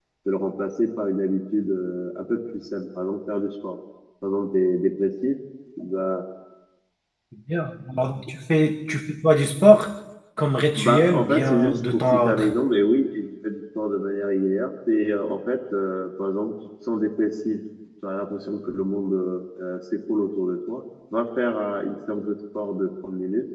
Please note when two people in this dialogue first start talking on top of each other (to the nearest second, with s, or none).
11 s